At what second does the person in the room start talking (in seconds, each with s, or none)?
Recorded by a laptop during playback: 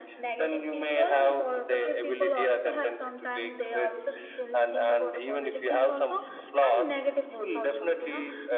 none